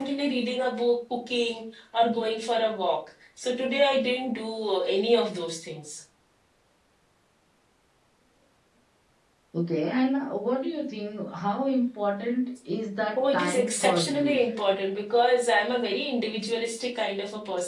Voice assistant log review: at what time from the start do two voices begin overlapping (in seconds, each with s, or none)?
13.2 s